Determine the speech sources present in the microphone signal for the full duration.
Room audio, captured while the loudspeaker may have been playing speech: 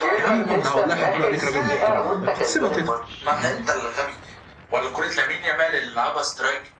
both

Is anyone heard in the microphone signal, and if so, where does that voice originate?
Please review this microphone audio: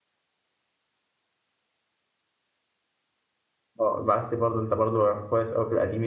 user only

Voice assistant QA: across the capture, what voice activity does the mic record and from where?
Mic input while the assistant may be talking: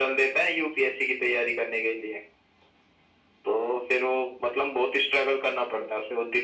echo only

